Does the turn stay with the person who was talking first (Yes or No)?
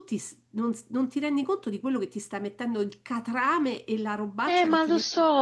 No